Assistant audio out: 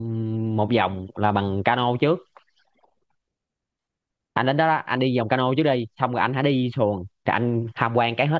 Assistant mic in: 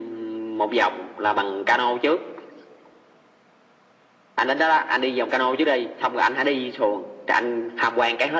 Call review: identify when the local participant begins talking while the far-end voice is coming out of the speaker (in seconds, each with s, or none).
none